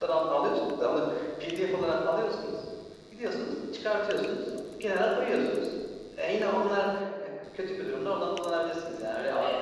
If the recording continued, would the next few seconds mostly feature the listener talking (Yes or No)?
Yes